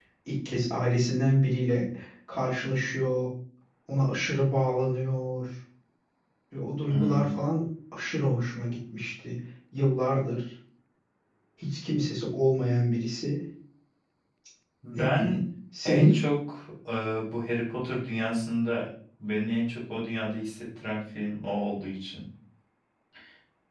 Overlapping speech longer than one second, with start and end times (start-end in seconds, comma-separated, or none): none